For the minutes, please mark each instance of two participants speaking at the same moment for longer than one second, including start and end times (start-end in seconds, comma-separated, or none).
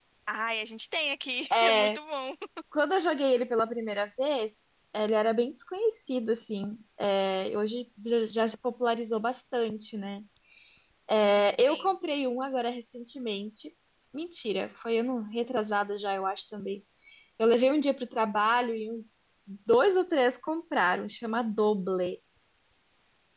none